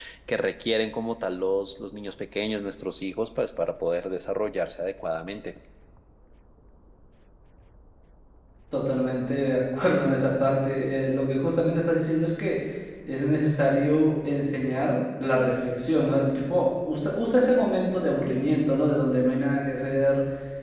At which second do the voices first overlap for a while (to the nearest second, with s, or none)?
none